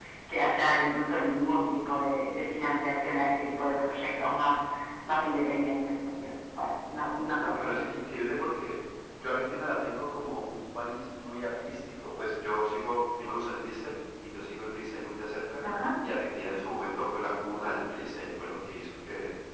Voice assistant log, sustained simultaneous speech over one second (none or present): none